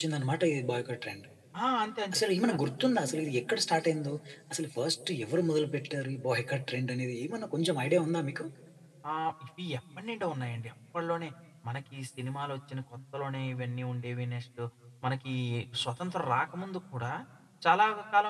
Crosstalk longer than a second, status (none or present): none